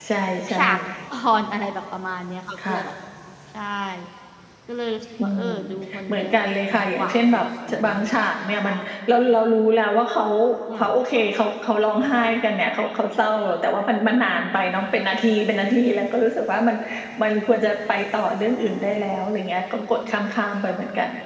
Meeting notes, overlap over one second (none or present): present